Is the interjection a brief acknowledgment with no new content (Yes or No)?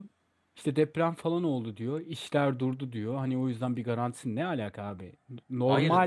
Yes